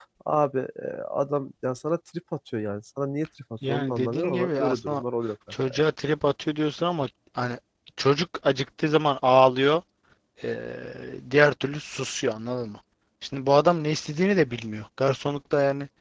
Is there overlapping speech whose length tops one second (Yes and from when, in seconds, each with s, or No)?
Yes, from 3.7 s